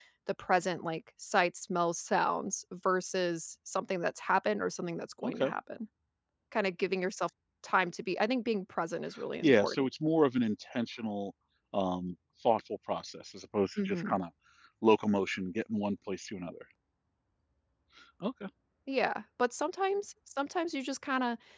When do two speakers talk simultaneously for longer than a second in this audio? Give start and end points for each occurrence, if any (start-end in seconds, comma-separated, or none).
none